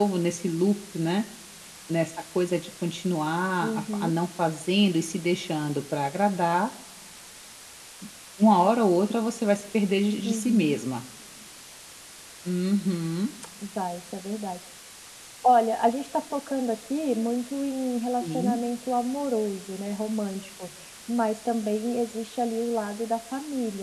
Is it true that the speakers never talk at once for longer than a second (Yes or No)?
Yes